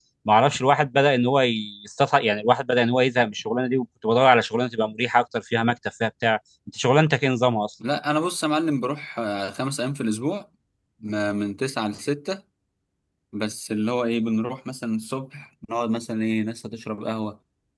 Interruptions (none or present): none